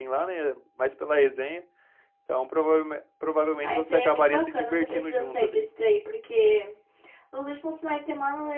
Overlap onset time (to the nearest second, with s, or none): 4 s